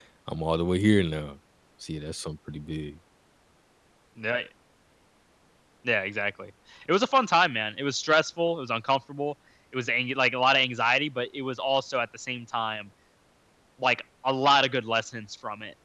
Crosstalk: none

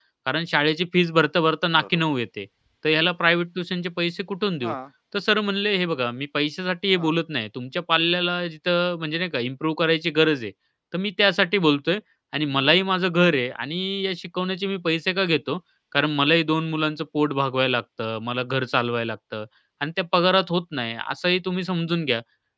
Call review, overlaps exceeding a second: none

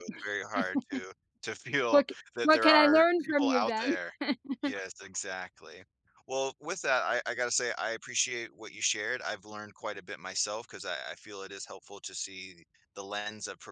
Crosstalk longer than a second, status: present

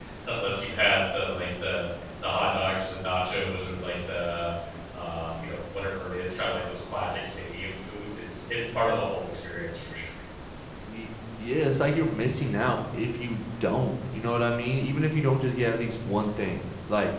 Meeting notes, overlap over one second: none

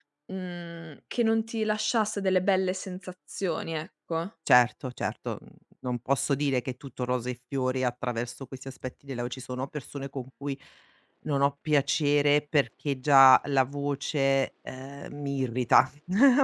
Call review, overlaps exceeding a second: none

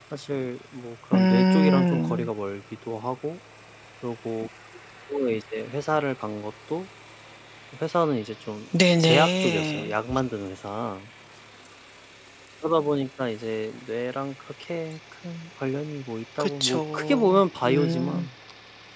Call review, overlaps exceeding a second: present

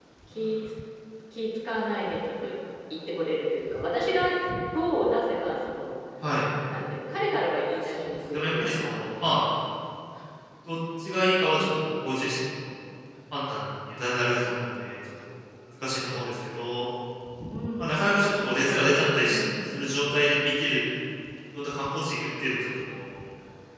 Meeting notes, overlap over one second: present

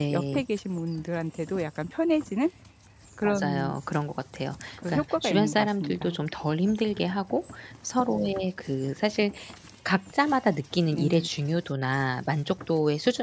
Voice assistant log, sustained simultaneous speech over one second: present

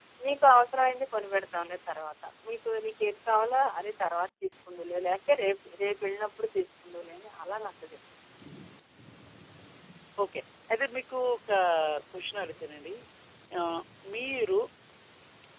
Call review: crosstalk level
none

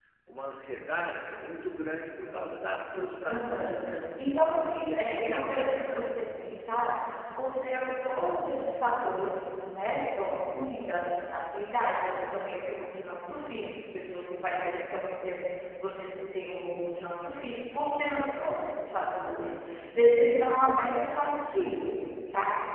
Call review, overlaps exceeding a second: present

